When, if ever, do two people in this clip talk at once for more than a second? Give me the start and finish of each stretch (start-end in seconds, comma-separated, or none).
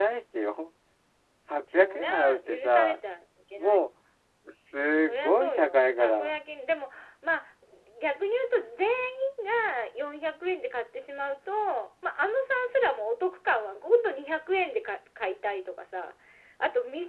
1.7-3.0, 5.1-6.4